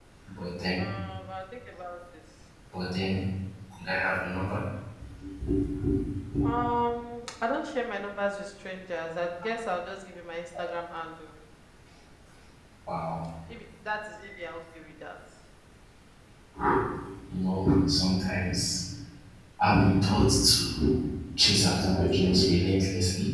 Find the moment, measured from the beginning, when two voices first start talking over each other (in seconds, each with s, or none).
none